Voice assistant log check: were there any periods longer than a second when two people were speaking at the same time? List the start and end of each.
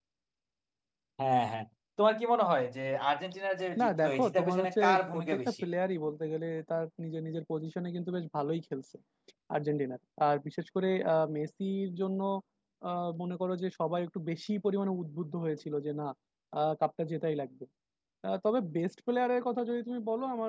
3.8-5.6

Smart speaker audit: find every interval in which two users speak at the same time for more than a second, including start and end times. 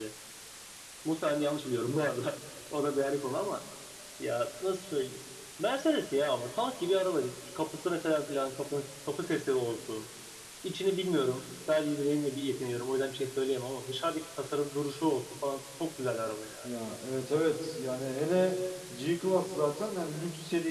none

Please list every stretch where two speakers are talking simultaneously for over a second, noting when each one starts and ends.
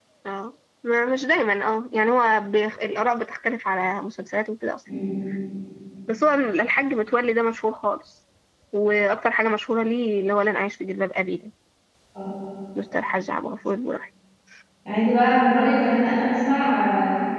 none

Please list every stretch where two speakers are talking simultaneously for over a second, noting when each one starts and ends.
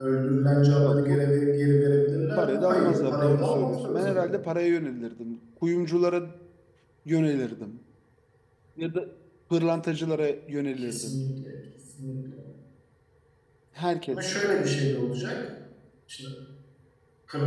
2.4-4.3

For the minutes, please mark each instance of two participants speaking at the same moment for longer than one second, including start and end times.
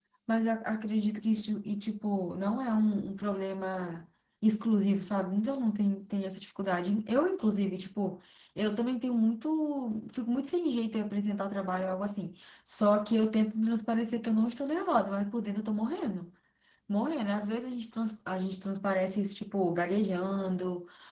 none

